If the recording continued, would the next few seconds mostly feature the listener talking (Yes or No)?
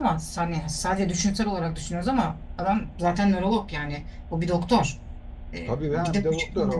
Yes